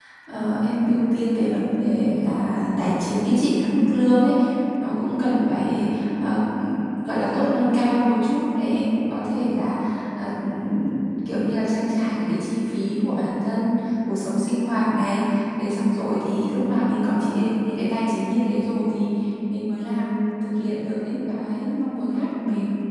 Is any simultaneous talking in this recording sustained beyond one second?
No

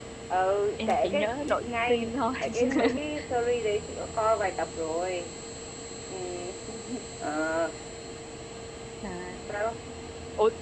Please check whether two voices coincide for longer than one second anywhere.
Yes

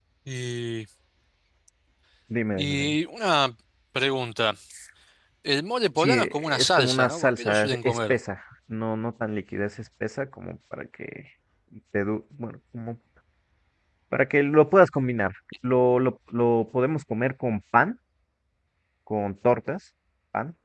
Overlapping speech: Yes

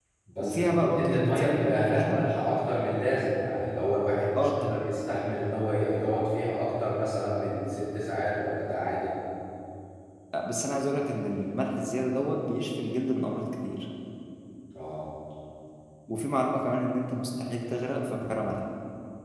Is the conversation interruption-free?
No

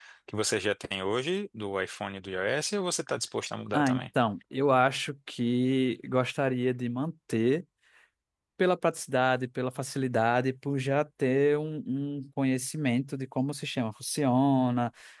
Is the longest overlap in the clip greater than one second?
No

